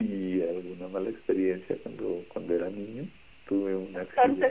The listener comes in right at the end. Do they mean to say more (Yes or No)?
Yes